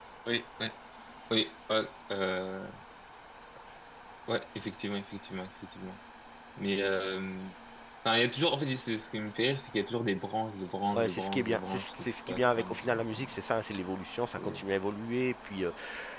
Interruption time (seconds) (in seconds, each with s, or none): 10.9 s